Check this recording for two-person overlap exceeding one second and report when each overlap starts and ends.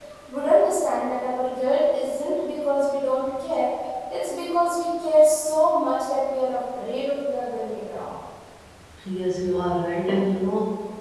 none

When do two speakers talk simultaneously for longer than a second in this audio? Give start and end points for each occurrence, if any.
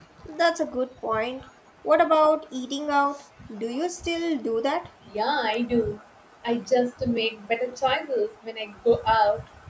none

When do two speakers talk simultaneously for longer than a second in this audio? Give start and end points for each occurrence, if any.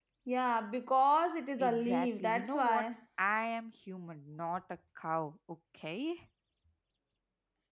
1.6-2.9

